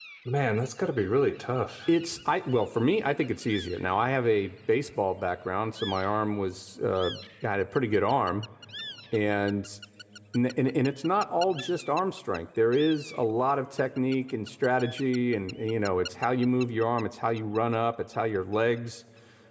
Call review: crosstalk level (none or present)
none